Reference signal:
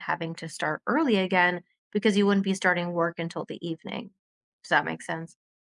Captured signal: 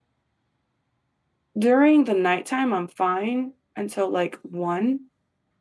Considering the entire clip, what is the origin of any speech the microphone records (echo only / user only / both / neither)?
user only